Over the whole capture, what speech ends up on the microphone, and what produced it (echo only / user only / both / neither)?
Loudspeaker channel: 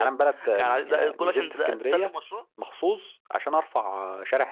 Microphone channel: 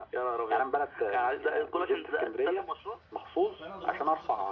both